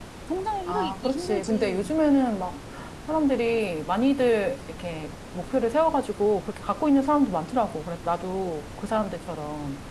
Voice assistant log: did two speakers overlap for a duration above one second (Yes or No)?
Yes